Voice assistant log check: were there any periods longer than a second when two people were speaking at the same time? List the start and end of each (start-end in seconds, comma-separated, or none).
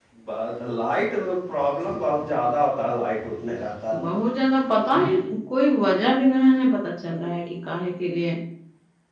none